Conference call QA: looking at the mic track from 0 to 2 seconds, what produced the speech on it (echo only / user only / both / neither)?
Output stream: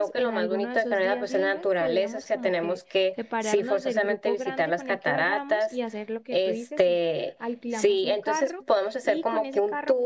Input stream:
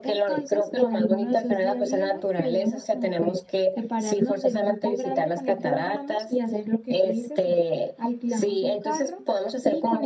echo only